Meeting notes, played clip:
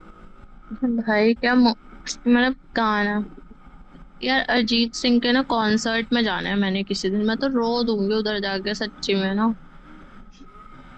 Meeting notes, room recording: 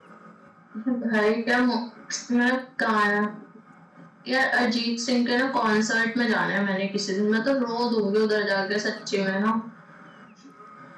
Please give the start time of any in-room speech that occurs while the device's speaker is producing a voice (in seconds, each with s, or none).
none